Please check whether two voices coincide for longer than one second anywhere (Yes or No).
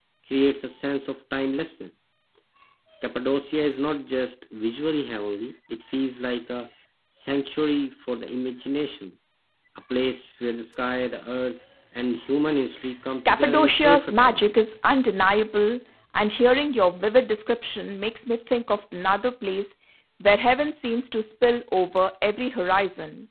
Yes